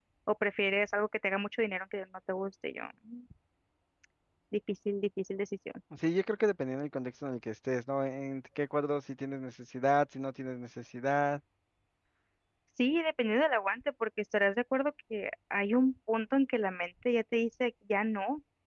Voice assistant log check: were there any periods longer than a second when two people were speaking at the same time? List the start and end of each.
none

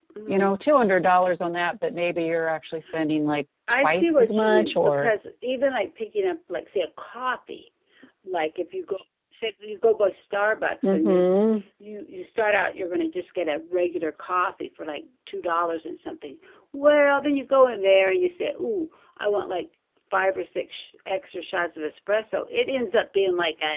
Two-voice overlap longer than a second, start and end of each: 3.8-5.1

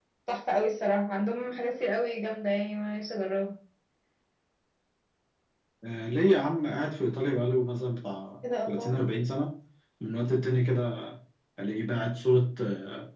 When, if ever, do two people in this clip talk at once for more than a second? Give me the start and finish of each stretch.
none

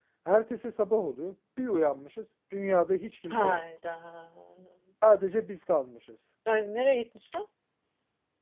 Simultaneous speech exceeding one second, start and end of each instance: none

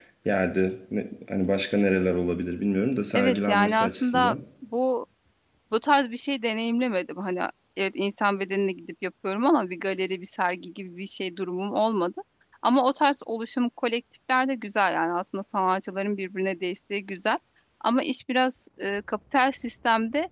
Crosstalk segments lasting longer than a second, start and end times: 3.1-4.4

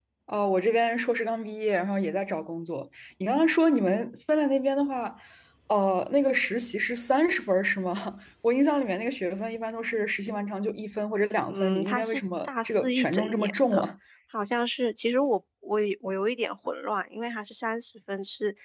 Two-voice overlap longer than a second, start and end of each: 11.5-13.9

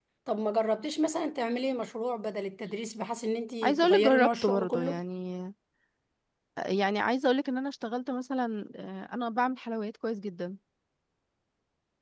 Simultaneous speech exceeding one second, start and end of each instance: 3.6-5.0

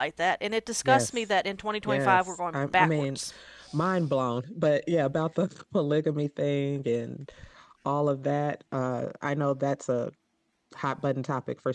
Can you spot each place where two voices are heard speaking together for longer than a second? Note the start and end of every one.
1.9-3.2

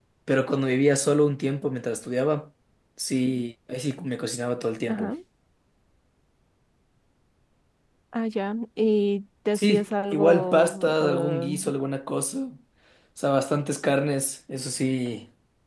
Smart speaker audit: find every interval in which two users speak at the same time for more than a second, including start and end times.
9.5-11.5

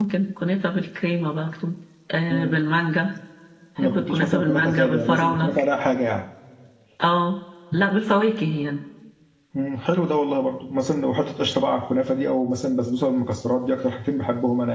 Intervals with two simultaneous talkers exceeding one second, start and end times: 3.8-5.5

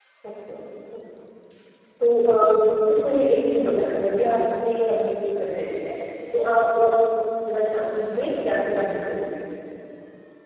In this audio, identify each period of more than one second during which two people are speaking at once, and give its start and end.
7.9-9.2

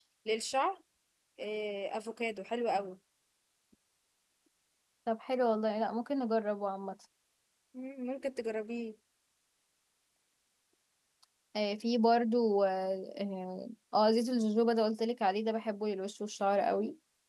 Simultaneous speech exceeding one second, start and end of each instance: none

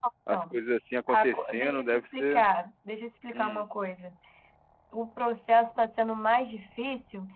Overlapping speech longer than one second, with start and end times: 1.1-2.4

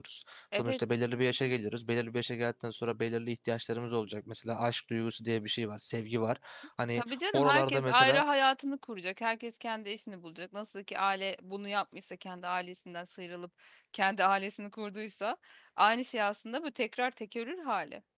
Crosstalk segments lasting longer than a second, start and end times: 7.0-8.2

